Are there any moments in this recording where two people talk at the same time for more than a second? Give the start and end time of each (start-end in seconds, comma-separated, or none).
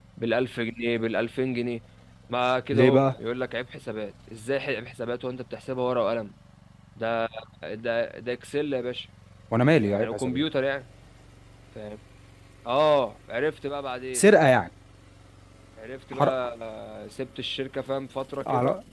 none